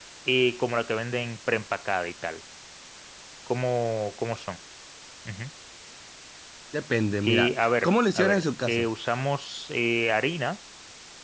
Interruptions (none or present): present